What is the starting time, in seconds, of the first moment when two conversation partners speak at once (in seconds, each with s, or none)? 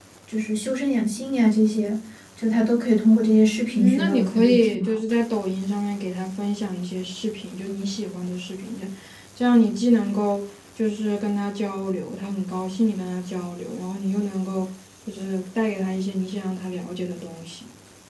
3.7 s